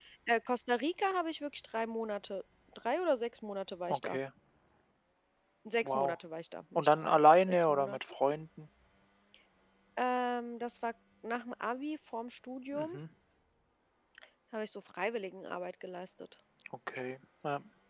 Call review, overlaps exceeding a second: present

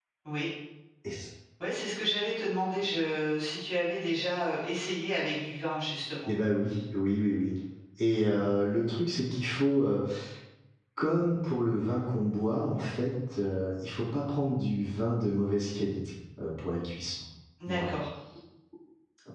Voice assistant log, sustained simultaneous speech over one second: none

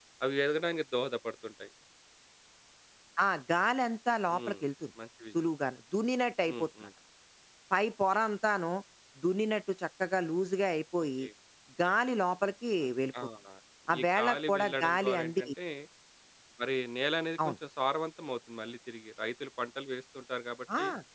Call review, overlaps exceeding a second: present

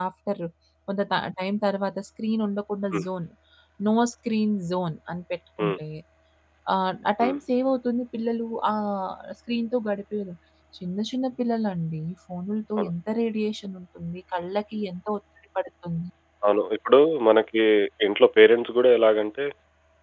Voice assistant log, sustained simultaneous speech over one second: none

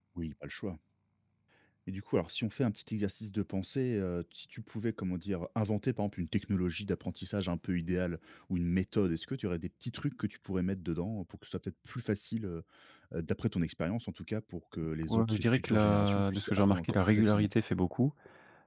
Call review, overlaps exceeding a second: present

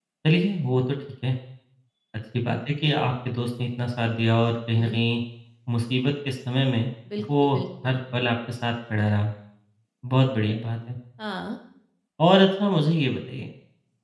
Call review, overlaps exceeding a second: none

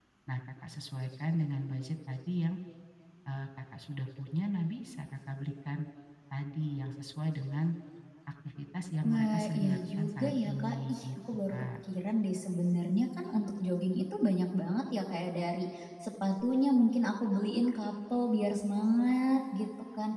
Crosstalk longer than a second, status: present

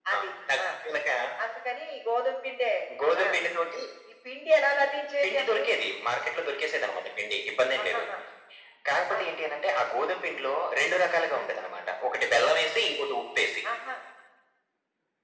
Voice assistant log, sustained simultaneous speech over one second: none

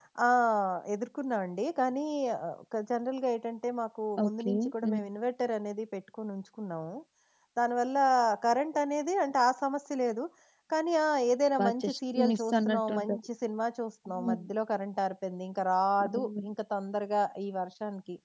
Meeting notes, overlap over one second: present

